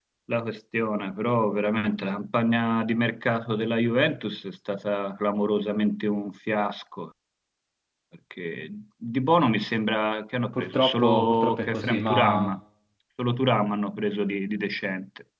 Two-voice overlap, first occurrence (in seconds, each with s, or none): 10.5 s